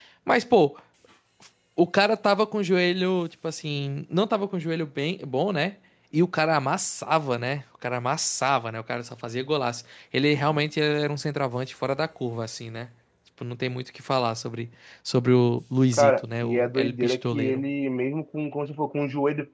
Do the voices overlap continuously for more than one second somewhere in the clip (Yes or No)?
Yes